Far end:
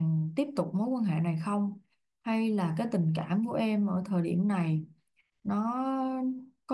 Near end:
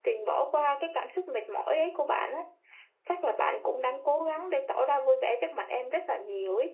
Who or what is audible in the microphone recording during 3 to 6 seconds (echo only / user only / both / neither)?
user only